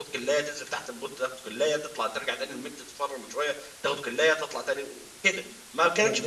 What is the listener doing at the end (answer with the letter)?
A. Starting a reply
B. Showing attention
B